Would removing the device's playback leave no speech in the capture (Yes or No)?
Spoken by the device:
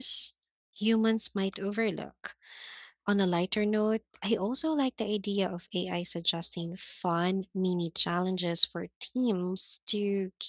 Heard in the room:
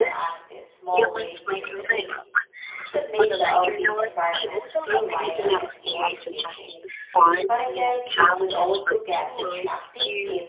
No